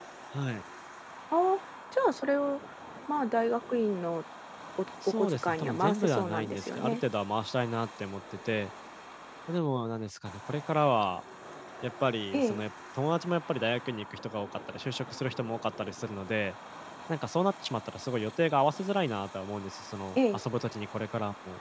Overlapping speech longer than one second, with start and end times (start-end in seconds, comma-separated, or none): 5.0-7.0